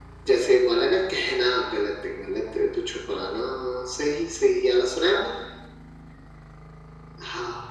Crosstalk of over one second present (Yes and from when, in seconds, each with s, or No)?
No